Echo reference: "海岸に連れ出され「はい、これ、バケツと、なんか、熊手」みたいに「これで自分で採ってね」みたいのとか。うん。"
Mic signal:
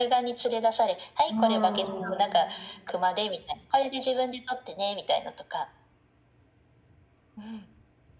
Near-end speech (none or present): present